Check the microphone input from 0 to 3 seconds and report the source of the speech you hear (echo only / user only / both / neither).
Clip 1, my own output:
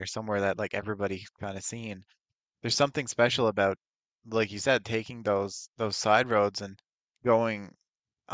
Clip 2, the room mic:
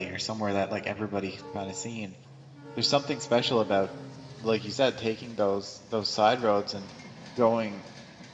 echo only